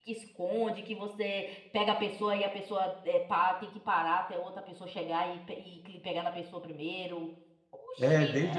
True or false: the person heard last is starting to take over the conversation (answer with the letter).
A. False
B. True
B